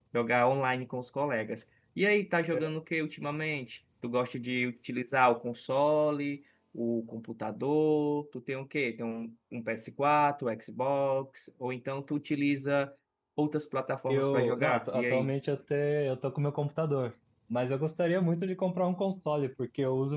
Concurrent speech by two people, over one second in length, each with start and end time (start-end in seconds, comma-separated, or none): 14.1-15.3